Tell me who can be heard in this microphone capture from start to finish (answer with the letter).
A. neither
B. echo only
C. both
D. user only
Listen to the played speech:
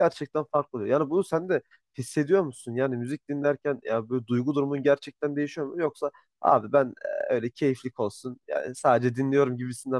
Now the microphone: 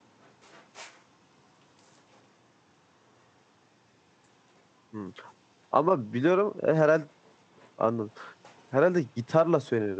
D